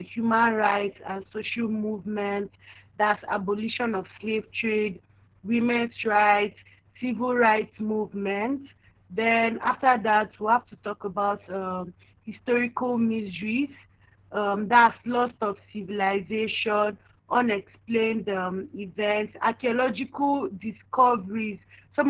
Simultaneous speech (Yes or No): No